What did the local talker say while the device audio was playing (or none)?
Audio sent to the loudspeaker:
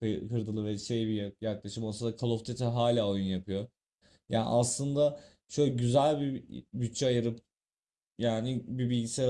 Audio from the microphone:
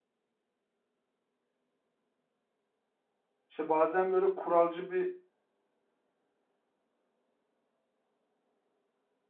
İşte bazen böyle kuralcı bir